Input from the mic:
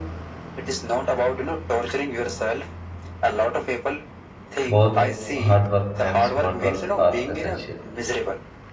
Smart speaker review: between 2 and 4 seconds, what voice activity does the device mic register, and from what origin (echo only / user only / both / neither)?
echo only